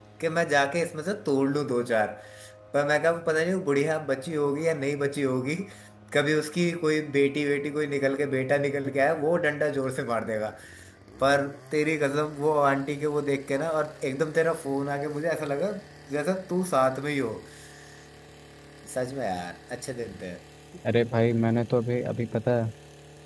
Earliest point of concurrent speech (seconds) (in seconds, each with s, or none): none